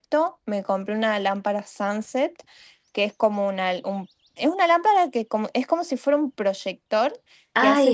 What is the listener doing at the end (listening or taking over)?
taking over